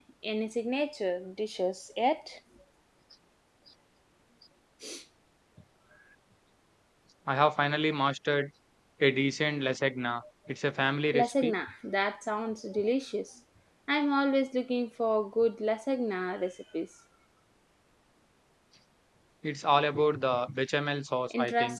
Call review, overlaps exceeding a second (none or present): none